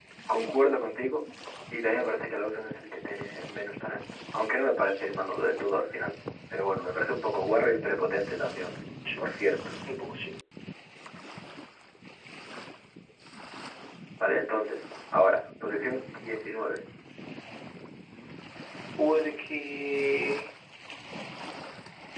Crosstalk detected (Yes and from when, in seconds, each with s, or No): No